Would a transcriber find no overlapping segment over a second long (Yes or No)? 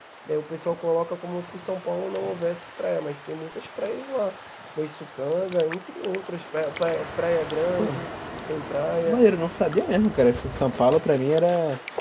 Yes